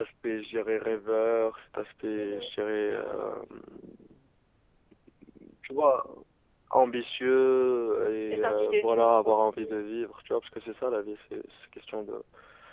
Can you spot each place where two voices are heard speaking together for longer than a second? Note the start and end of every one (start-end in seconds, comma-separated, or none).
8.3-9.6